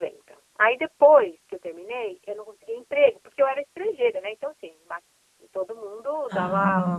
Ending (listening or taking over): listening